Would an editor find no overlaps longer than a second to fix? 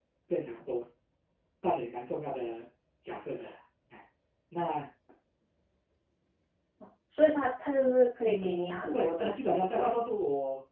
No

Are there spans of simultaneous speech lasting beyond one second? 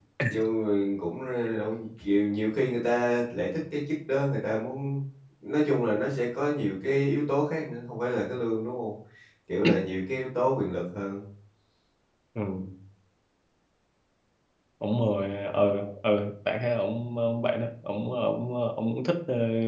No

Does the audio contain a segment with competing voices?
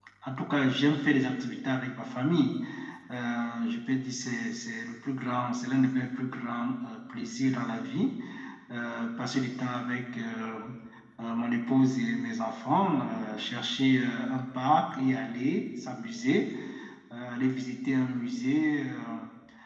No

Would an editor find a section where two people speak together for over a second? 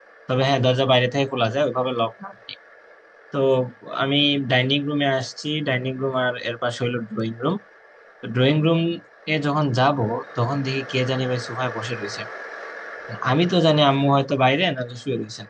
No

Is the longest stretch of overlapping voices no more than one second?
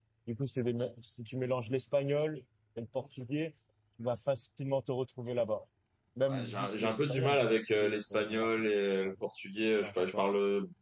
No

